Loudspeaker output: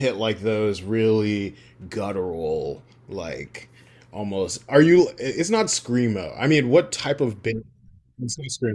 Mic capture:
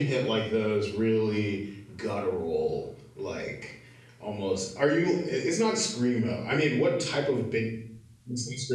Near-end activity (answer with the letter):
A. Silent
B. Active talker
A